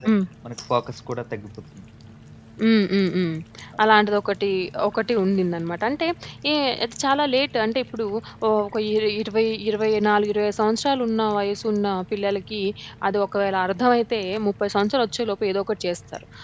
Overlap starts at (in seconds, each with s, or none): none